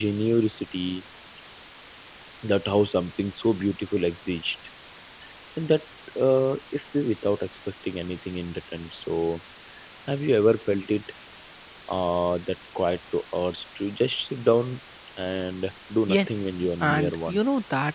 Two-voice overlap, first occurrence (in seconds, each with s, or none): 16.1 s